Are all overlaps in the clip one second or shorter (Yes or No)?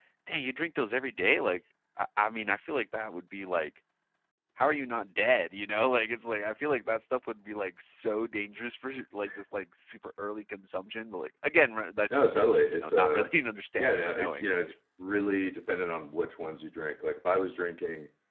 No